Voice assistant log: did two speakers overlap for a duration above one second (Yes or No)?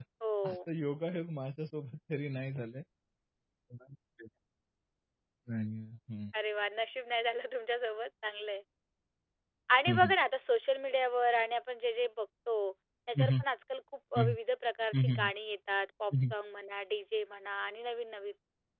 No